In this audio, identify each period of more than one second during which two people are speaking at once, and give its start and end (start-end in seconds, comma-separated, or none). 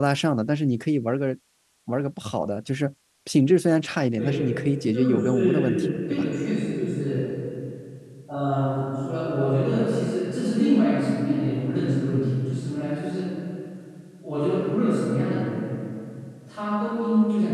4.9-6.3